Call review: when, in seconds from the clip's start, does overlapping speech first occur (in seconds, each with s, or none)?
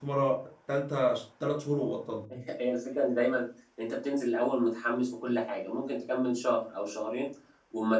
none